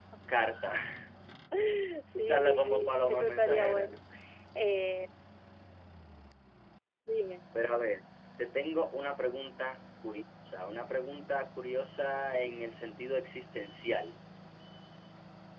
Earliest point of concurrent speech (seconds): 2 s

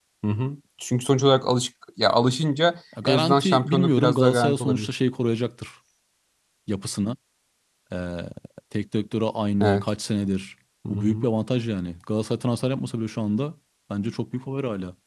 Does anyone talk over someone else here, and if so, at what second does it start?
3 s

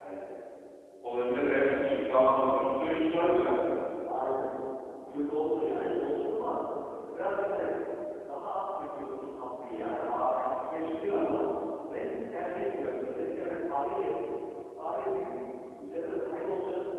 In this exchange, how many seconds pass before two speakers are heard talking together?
none

